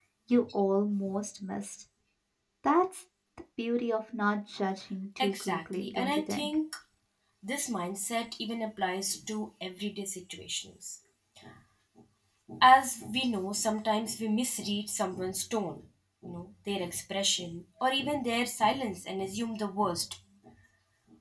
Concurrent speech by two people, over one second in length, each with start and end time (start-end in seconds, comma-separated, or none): 5.2-6.5